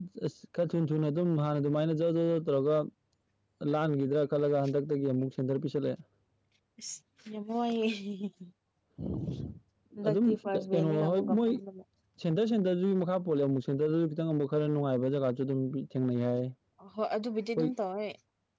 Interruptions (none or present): present